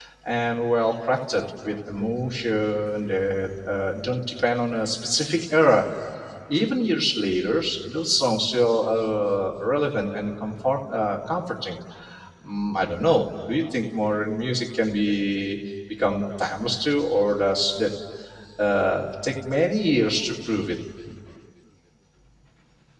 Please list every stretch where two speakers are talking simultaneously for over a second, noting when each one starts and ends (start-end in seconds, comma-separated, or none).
none